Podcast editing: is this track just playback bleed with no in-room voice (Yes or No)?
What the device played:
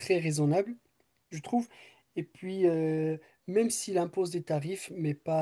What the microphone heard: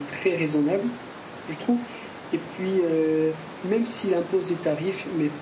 Yes